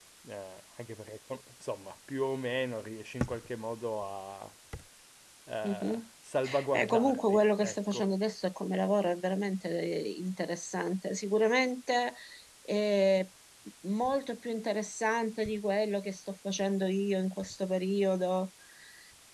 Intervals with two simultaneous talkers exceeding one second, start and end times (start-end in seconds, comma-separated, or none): 6.7-8.0